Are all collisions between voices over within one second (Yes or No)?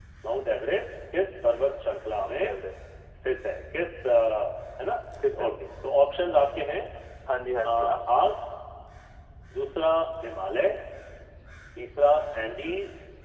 Yes